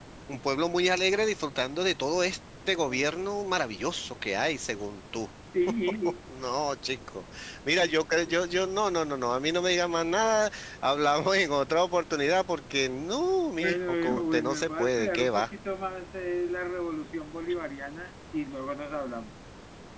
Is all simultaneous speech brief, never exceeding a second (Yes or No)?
No